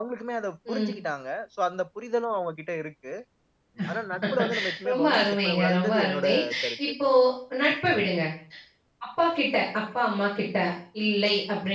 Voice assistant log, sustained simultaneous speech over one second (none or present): present